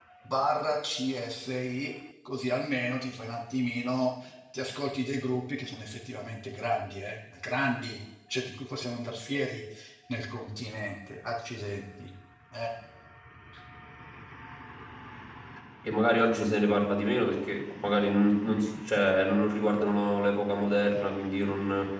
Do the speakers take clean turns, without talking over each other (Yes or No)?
Yes